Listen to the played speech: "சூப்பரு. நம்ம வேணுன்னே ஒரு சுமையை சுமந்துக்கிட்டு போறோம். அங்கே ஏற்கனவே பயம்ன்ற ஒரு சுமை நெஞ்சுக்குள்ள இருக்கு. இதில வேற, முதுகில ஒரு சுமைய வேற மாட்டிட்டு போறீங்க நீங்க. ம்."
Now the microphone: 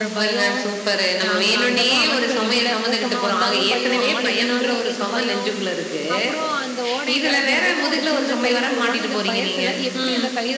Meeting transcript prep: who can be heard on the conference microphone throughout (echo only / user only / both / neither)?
both